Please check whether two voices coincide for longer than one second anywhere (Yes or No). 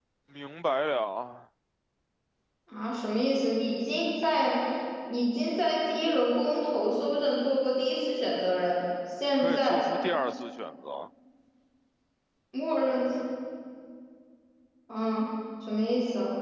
No